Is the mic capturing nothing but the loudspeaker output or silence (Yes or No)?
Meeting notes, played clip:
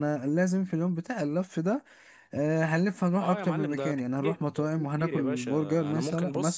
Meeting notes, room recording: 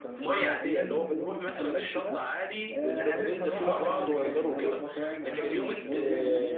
No